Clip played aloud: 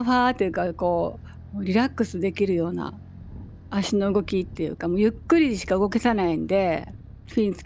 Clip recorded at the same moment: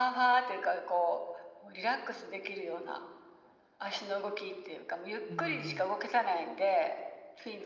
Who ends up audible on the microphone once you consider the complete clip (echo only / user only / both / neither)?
both